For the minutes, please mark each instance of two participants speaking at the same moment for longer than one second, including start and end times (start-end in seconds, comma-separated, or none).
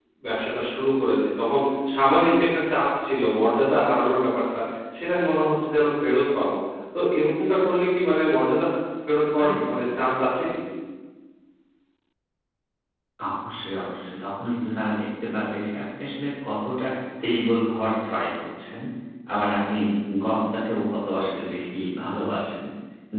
none